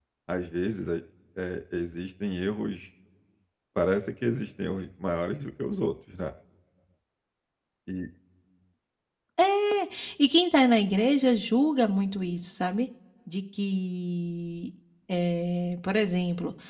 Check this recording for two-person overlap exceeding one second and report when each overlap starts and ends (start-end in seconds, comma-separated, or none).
none